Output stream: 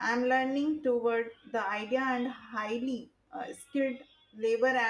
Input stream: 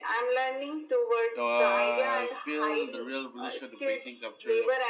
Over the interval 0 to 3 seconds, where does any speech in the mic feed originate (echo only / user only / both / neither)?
both